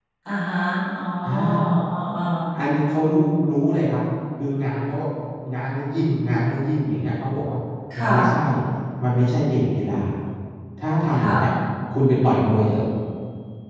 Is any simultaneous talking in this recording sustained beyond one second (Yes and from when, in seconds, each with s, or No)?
No